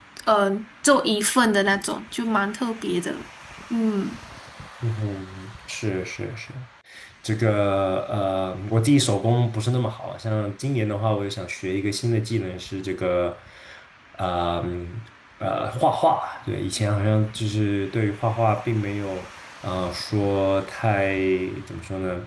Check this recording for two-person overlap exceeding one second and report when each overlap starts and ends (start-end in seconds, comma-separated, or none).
none